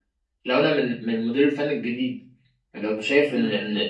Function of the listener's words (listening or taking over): listening